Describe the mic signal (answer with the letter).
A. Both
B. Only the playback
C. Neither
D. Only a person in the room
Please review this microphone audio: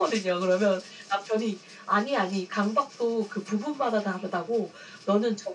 B